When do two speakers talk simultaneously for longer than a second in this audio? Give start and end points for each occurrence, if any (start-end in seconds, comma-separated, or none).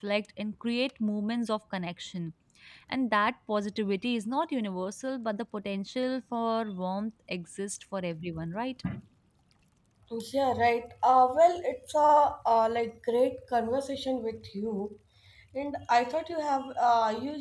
none